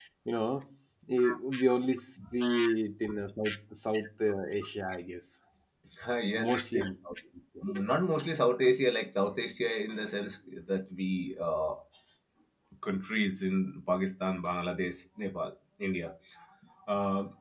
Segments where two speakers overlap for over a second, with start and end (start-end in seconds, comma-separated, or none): none